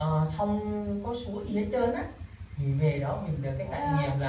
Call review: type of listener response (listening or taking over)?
listening